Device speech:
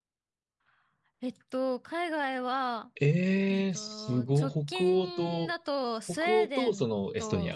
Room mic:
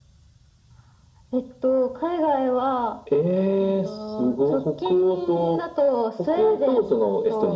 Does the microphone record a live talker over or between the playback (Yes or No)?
No